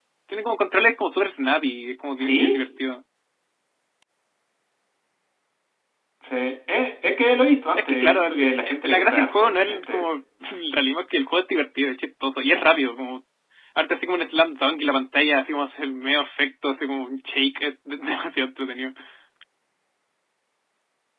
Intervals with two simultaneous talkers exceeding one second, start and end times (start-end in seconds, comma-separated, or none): 7.8-10.0